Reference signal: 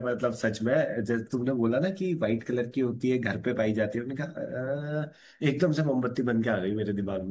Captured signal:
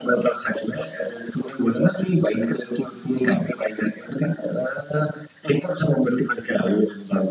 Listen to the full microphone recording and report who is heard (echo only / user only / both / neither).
echo only